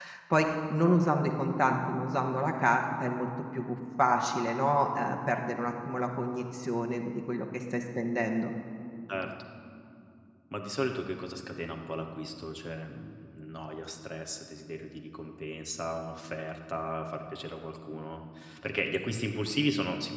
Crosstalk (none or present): none